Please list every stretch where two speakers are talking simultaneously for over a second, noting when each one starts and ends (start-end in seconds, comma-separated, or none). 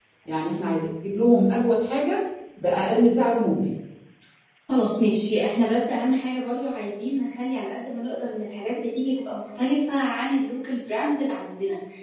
none